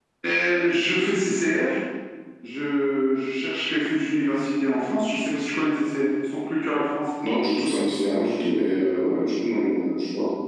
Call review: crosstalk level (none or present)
none